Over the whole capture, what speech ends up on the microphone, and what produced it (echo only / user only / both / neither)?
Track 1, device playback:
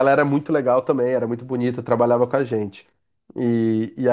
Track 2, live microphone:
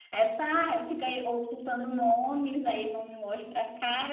user only